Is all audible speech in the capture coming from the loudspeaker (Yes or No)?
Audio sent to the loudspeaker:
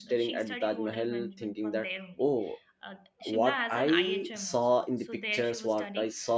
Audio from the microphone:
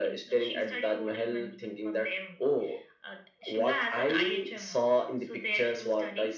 Yes